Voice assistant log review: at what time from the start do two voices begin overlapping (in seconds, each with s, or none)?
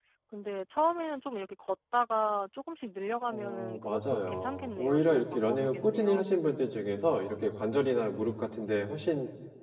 3.3 s